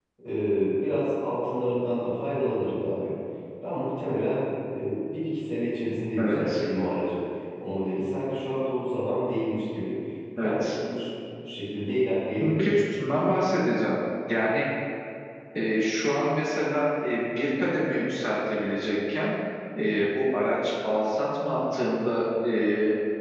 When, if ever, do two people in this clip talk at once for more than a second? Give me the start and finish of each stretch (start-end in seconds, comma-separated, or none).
none